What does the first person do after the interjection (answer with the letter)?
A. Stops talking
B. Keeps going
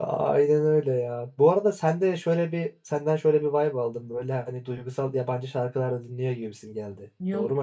A